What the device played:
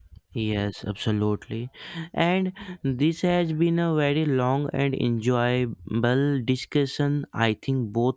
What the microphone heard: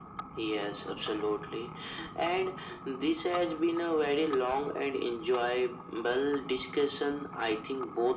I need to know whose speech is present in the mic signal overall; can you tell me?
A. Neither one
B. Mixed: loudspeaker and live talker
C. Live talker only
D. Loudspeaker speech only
D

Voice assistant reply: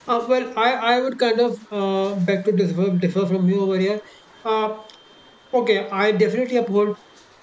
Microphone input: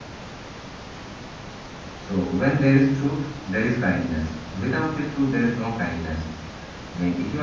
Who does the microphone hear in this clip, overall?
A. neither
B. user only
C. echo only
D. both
B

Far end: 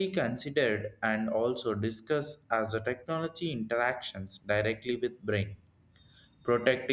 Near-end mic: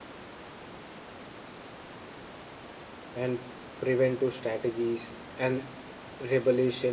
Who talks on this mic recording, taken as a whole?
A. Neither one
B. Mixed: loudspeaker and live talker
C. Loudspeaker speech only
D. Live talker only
D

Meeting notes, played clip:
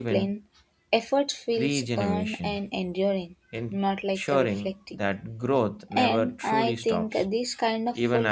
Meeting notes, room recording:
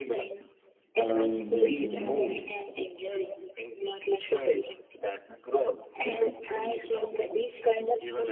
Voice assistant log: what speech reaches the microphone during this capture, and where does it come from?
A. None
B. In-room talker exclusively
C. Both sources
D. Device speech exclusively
C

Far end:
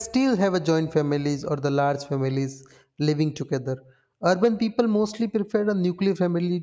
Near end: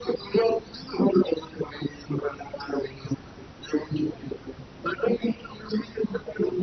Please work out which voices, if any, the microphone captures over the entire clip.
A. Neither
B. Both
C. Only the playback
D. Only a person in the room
C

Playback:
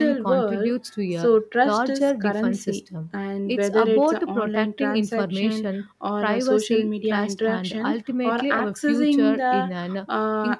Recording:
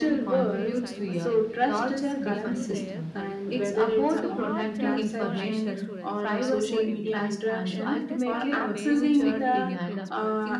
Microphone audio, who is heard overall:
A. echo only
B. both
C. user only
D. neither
B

